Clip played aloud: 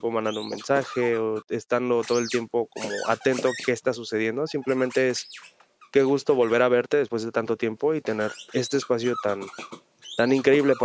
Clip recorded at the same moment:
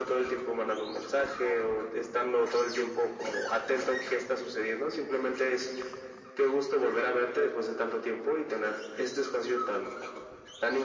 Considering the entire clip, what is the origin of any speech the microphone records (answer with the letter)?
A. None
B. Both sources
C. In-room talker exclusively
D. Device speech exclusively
D